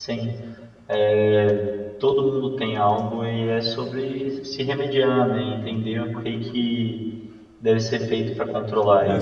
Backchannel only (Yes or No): No